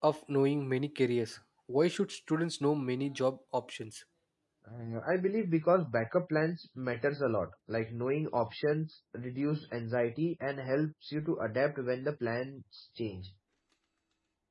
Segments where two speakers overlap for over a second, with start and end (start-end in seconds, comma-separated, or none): none